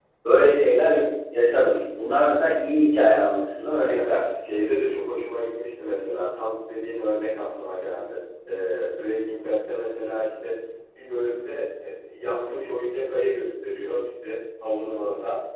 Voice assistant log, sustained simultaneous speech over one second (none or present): none